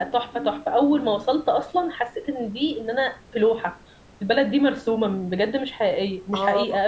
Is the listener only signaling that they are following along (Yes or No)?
No